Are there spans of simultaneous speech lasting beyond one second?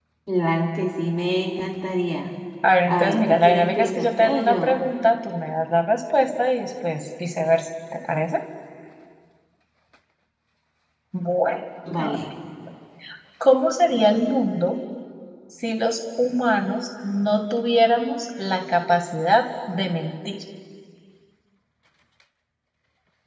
Yes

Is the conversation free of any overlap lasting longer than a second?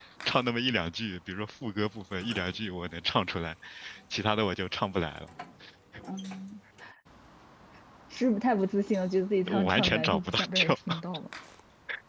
No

